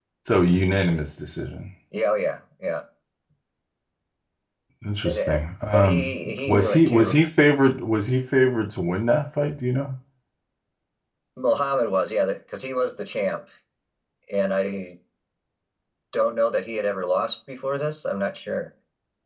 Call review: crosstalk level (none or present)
present